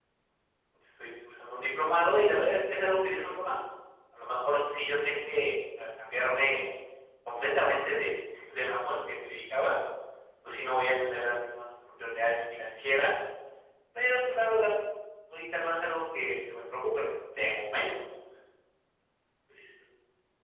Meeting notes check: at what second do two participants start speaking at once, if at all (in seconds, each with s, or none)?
none